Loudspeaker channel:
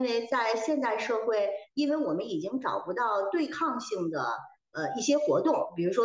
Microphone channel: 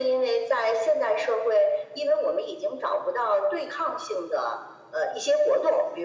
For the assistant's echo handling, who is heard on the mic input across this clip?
echo only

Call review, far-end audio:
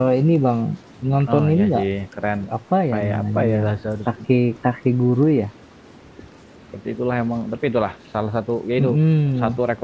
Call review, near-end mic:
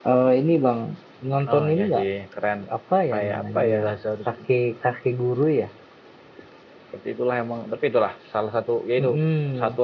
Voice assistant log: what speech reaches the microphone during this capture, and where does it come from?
echo only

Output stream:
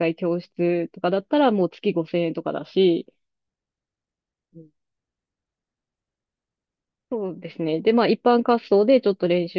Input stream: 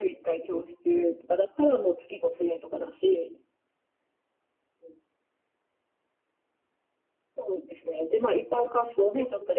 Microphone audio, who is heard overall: echo only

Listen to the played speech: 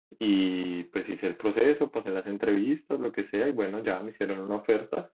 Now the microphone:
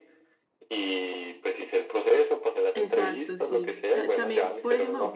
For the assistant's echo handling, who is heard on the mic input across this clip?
both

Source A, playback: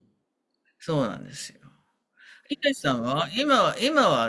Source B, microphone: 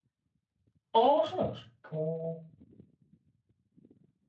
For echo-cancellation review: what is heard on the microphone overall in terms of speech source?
user only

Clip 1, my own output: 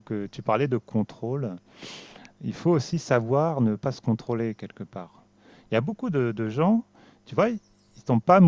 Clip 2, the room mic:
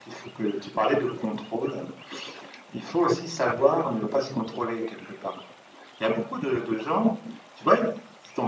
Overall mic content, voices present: echo only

